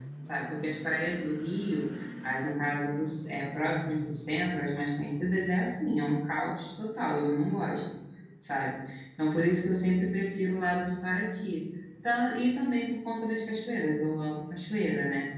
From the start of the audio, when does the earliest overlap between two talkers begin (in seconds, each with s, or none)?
none